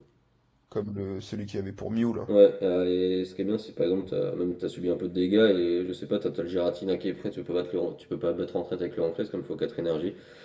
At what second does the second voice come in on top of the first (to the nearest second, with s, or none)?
none